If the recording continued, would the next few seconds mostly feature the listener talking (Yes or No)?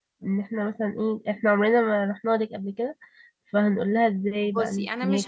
Yes